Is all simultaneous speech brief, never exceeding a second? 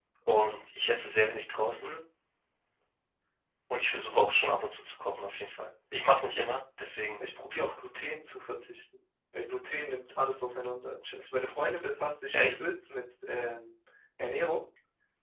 Yes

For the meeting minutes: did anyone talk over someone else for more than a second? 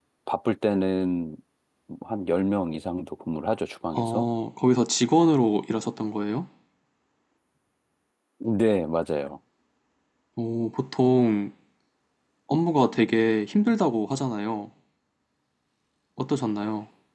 No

